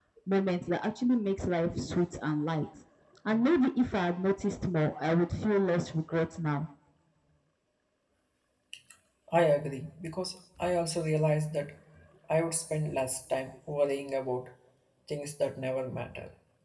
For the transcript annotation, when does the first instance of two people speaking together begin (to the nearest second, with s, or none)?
none